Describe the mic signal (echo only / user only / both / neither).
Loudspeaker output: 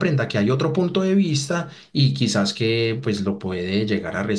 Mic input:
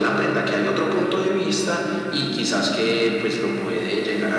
echo only